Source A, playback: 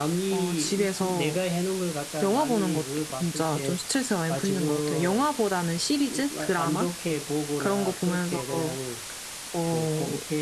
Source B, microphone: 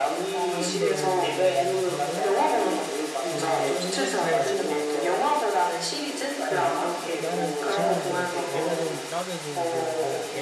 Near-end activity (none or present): present